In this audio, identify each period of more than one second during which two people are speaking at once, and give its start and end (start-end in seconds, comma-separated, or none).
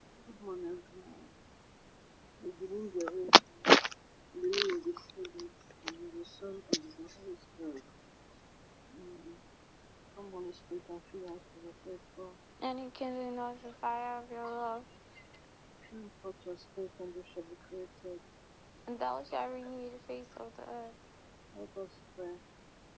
none